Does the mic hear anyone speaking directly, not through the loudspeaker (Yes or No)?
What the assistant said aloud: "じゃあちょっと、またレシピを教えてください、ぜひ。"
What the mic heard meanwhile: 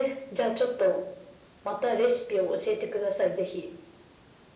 No